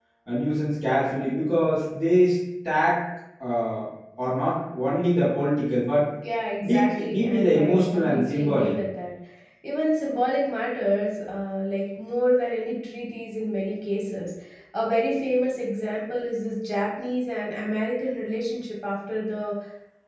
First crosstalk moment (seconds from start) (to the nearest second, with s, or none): 7 s